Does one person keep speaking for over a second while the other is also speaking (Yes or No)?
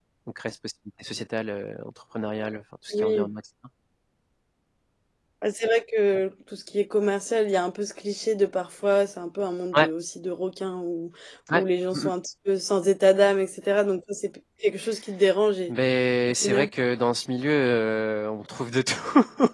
No